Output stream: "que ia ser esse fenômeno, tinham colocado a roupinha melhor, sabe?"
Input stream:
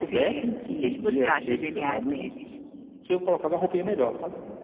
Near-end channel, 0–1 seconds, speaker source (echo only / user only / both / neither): both